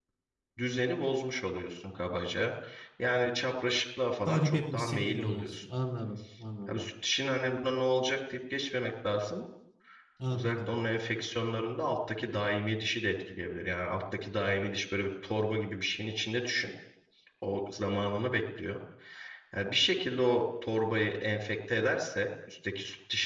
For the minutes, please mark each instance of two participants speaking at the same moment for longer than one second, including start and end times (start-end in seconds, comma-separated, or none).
4.3-5.6